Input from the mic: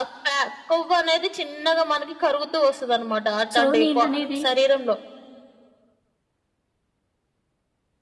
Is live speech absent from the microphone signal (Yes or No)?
No